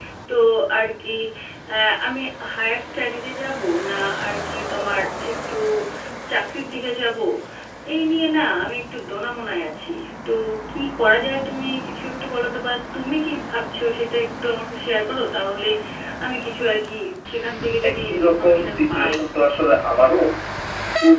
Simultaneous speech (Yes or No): Yes